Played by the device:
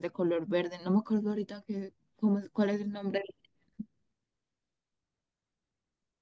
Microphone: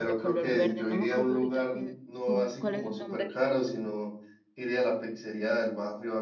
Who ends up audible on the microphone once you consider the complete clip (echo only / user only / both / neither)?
both